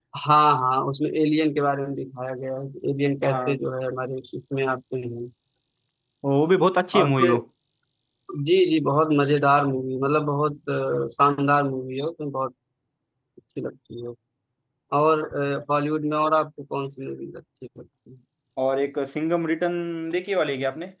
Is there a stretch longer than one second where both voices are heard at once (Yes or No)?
No